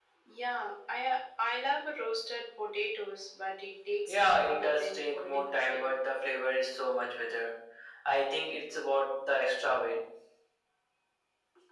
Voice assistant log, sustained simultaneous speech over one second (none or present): present